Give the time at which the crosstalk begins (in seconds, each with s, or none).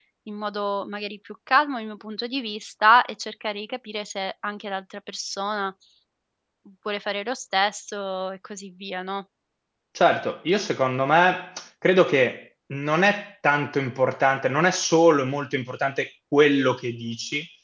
none